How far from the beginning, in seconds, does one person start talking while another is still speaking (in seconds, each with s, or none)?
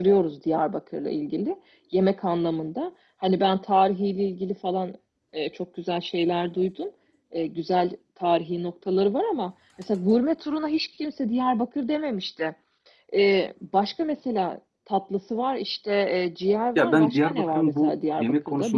16.8 s